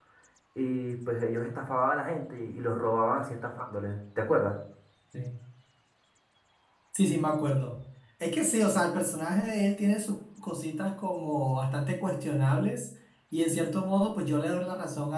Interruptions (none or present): none